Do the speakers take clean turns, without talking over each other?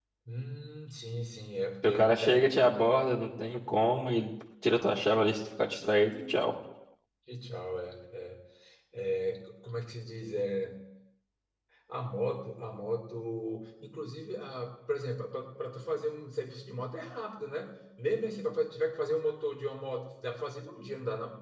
No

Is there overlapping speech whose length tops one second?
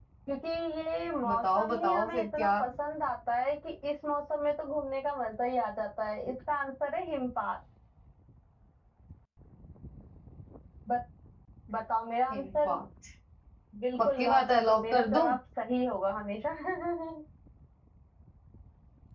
Yes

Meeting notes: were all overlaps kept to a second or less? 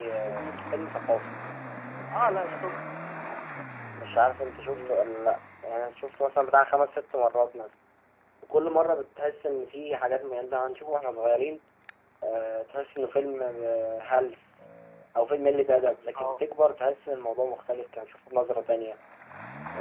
Yes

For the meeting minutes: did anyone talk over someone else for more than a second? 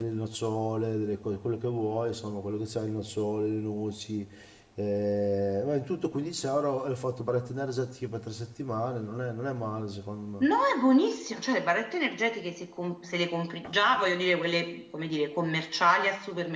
No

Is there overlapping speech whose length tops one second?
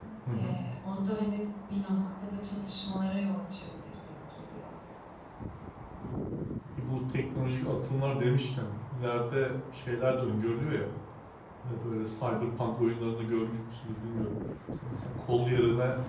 No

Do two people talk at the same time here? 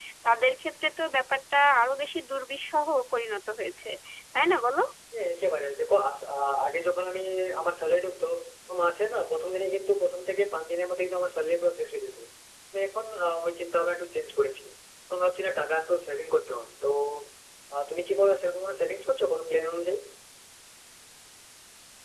No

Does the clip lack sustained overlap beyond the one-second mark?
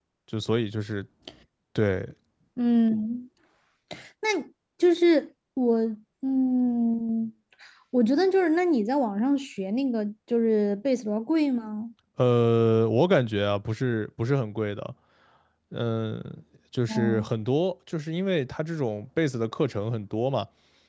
Yes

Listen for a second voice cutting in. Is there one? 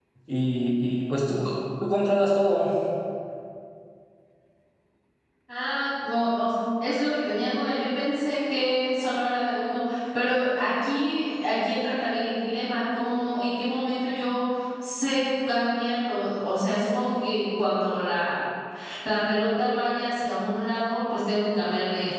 No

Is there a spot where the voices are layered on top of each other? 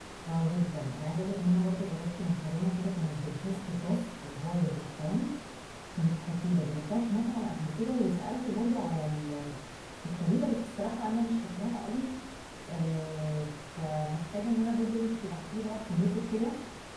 No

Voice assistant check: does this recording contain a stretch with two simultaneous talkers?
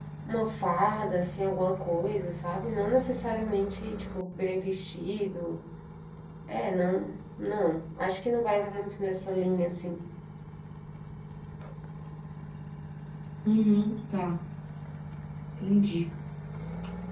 No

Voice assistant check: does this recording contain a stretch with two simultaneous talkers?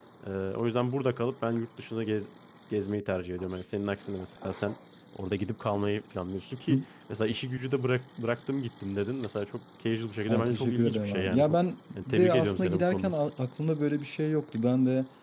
Yes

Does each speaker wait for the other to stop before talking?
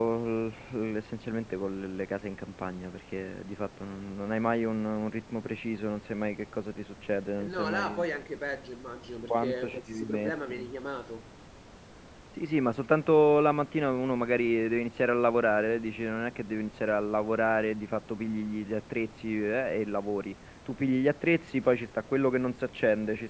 No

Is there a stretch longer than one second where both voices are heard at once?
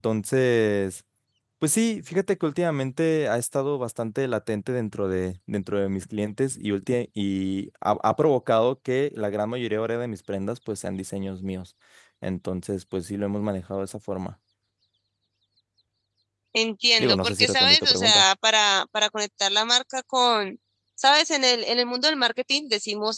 Yes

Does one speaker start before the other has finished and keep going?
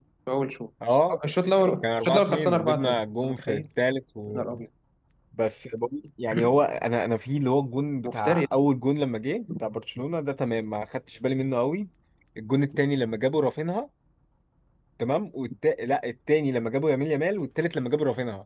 Yes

